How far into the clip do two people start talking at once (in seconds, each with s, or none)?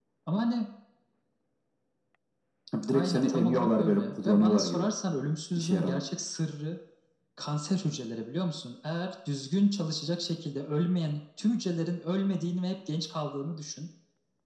2.9 s